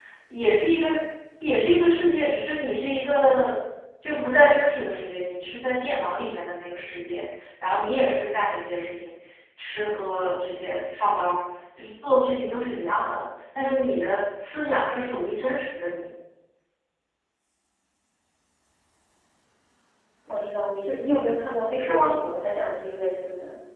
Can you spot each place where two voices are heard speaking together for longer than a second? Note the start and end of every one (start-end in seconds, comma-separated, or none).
none